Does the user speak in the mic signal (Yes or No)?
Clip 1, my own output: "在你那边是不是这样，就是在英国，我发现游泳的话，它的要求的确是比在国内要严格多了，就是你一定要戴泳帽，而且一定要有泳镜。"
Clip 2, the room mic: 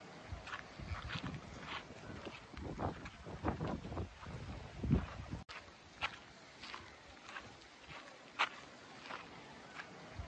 No